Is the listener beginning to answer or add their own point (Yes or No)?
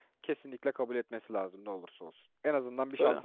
No